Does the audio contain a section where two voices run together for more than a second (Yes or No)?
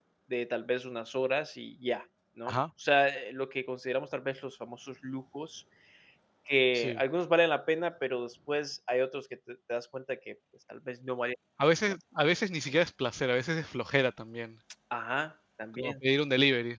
No